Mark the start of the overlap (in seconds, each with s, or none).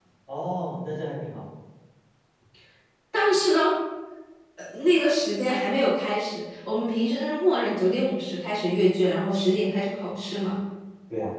none